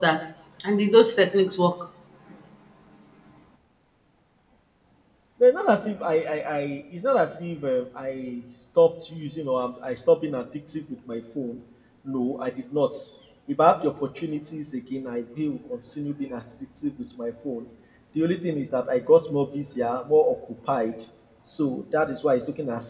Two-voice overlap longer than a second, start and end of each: none

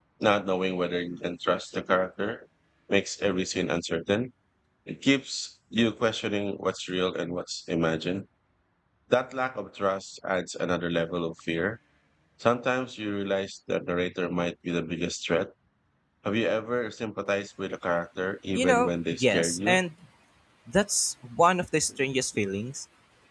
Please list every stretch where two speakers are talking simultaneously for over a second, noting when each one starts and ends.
18.5-19.8

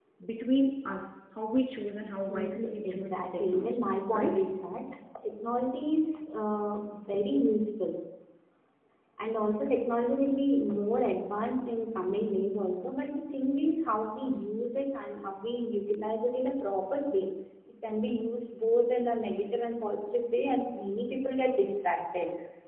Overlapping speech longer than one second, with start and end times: 2.3-4.4

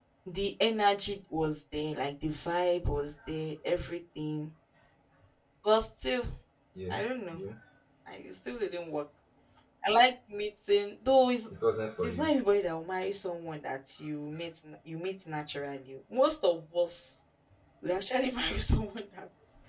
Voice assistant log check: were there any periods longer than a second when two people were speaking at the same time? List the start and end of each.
none

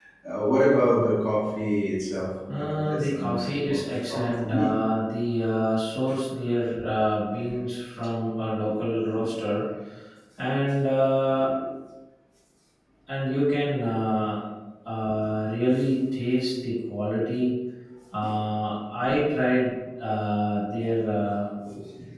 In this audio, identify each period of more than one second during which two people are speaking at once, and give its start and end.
2.5-4.8

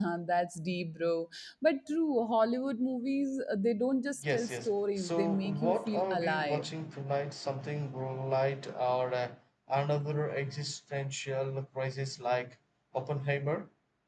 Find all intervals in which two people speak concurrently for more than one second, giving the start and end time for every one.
4.2-6.7

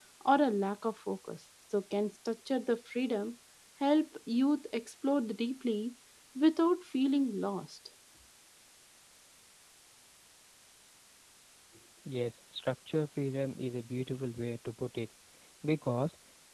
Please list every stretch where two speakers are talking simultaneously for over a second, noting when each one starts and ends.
none

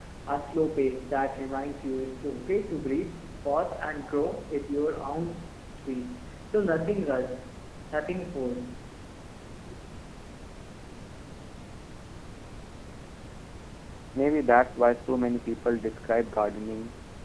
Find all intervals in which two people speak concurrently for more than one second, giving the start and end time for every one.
none

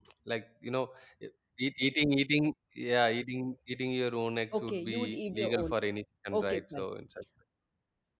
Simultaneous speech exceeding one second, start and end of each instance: 4.6-5.9

